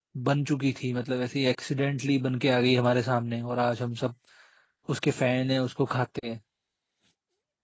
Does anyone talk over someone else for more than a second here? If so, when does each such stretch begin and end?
none

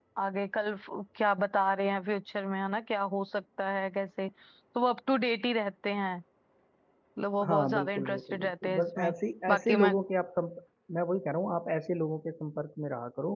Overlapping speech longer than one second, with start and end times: 7.5-9.1

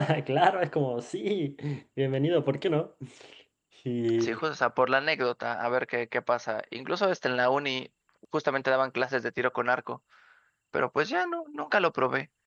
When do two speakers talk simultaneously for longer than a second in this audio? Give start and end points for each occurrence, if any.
none

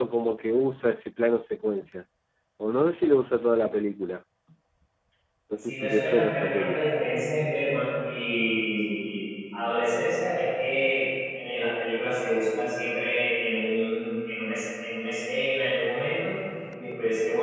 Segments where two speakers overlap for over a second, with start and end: 5.6-6.8

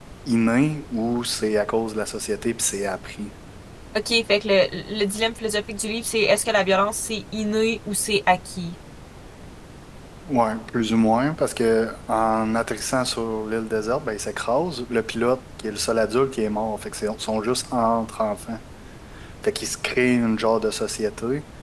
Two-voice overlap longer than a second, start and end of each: none

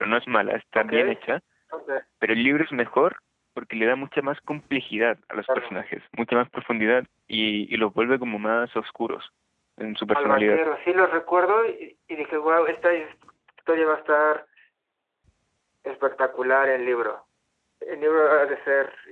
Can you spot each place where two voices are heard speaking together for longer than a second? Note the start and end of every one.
none

